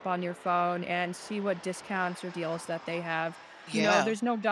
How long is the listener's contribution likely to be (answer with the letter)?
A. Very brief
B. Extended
A